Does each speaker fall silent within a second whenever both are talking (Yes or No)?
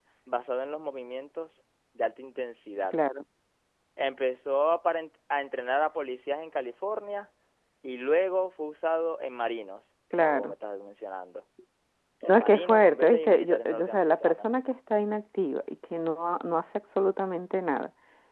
No